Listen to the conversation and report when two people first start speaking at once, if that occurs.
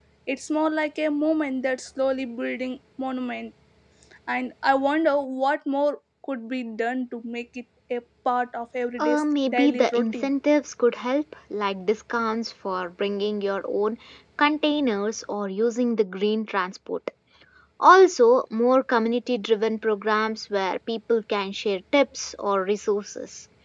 9.0 s

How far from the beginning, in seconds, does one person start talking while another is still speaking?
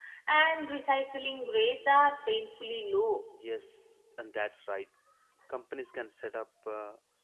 none

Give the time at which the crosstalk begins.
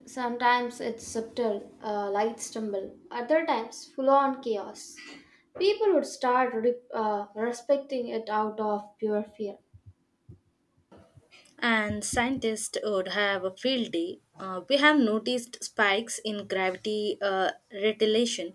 none

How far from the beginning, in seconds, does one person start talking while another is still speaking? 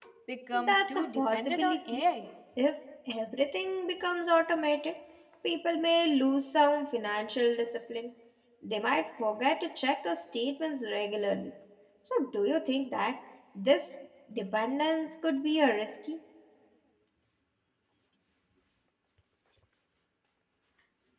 0.5 s

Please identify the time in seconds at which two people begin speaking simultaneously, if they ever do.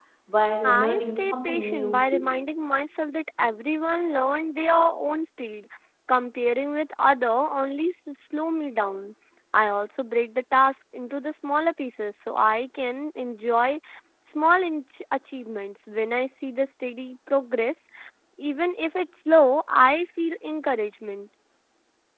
0.6 s

